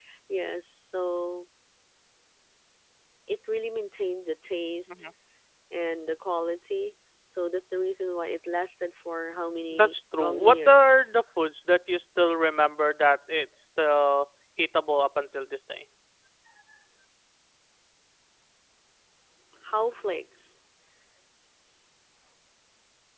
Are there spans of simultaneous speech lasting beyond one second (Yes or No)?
Yes